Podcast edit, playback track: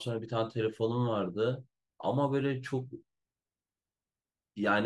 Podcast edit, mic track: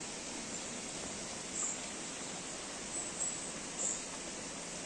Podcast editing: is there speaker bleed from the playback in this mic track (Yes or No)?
No